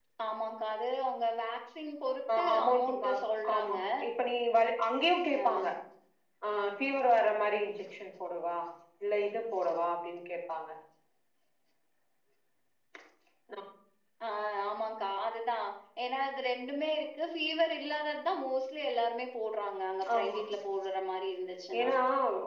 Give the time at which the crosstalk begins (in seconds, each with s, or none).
2.4 s